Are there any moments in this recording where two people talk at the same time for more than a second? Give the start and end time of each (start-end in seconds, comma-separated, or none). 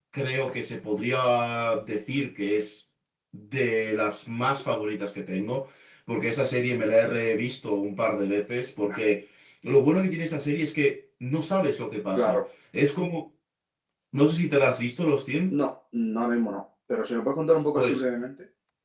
none